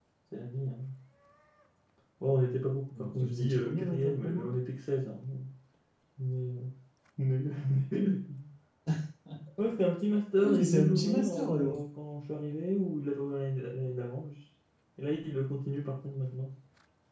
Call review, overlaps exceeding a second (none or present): present